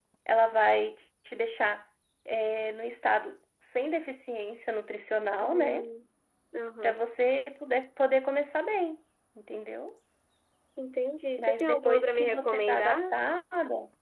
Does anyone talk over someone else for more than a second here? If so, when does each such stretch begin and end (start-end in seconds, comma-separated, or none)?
11.4-13.0